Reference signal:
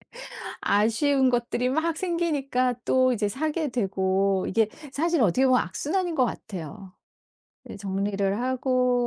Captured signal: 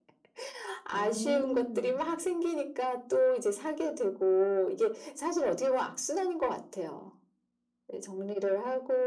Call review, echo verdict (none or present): present